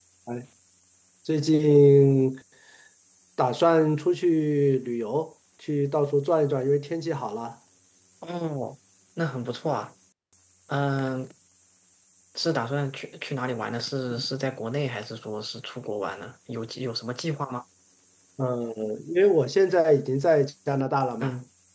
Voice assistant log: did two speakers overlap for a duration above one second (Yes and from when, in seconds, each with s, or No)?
No